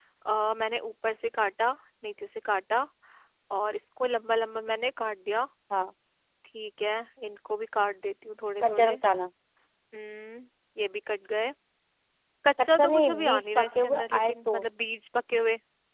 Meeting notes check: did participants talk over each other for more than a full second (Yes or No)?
Yes